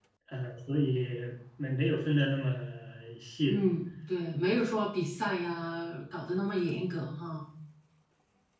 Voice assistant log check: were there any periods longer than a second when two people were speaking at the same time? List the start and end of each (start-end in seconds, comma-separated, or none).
none